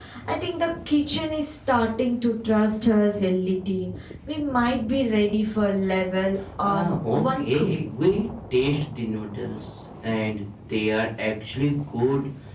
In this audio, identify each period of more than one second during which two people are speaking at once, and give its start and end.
6.6-7.9

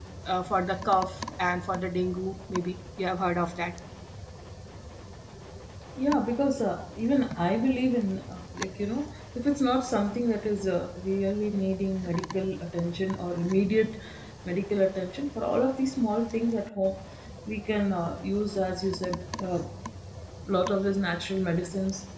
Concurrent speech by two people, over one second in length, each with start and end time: none

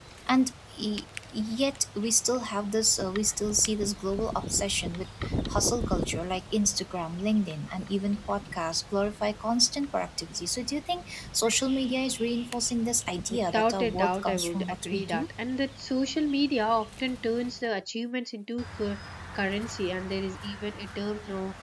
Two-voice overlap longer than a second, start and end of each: 13.3-15.2

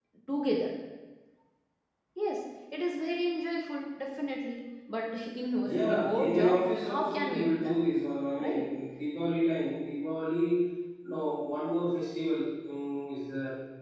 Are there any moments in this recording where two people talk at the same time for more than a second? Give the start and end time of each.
5.6-7.8

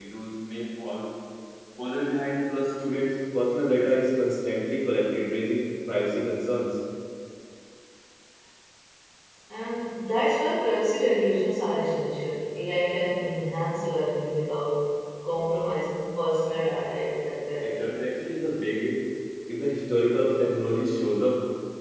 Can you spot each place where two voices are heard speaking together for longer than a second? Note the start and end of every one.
none

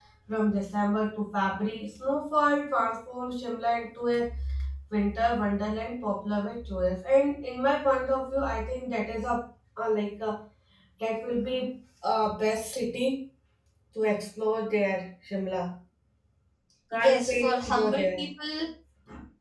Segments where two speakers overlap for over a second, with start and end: 16.9-18.2

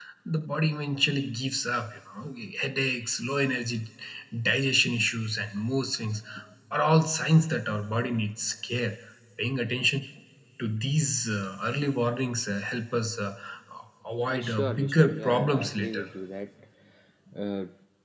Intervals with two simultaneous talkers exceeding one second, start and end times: 14.3-16.0

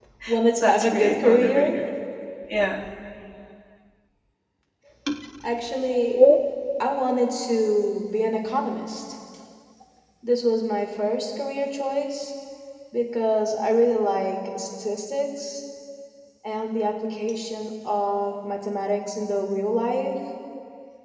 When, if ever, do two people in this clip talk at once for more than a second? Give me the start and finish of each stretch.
0.6-1.8

